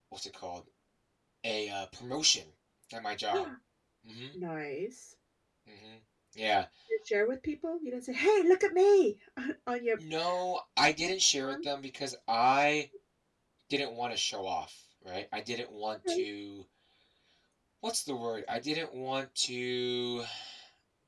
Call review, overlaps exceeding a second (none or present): none